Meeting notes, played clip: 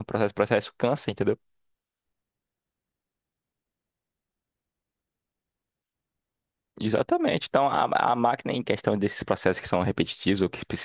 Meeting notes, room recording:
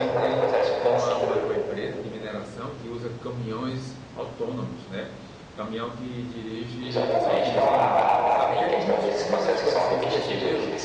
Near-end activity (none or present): present